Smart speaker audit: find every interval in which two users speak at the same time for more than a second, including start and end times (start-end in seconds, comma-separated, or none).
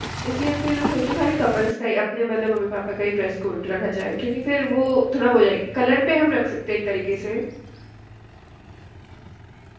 none